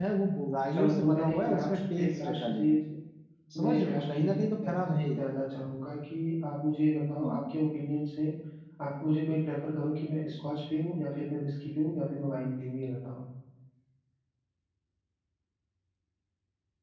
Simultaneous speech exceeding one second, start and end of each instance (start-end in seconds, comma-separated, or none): 0.7-2.6, 3.6-5.2